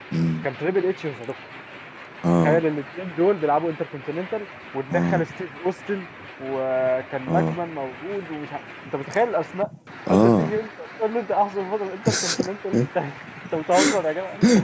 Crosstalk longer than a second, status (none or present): none